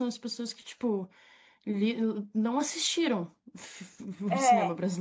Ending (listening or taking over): listening